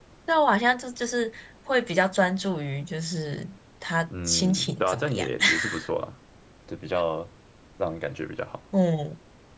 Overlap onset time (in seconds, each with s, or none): 4.1 s